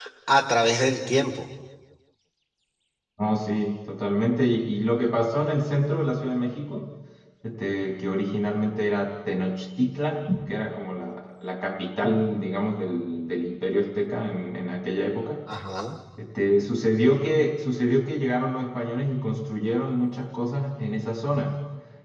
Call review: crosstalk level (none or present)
none